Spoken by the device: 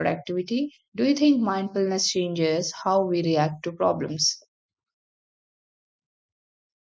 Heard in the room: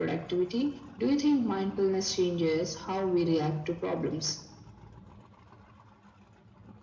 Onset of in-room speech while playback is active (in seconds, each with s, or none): none